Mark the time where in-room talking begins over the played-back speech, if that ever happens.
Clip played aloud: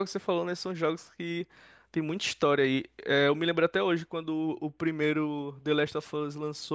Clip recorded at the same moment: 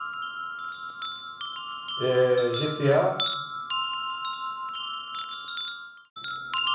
2 s

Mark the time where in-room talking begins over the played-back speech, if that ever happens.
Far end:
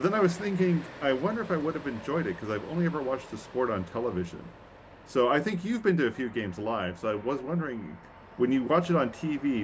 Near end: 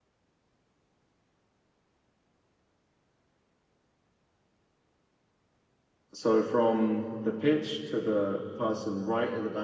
6 s

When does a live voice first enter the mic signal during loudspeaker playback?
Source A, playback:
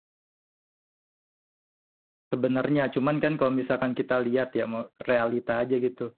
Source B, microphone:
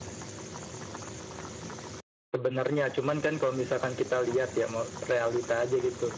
none

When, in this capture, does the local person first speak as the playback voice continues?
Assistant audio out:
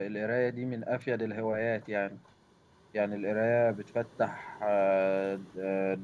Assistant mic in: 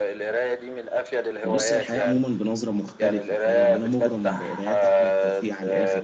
1 s

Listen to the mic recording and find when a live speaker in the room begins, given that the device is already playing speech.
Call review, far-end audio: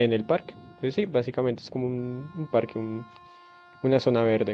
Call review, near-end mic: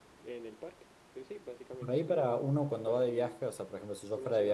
2 s

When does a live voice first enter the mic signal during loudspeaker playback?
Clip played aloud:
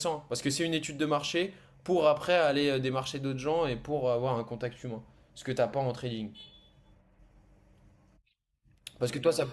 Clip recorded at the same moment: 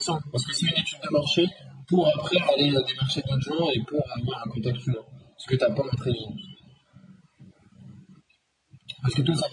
none

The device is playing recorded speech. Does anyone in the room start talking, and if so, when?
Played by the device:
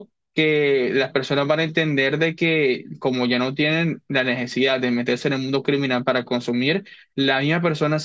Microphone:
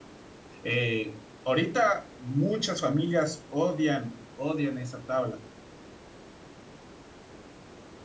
1 s

